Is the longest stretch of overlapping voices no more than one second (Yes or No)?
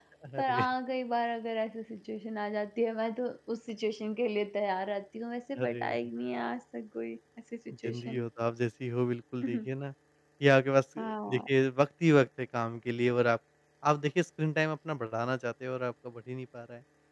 Yes